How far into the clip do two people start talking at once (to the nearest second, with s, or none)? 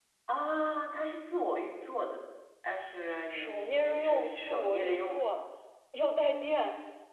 3 s